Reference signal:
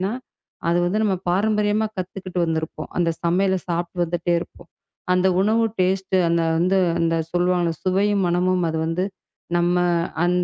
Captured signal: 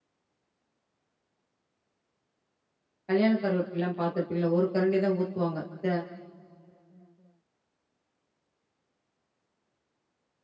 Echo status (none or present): none